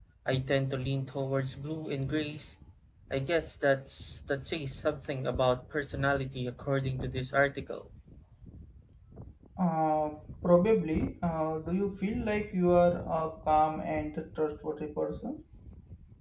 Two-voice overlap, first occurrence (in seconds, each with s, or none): none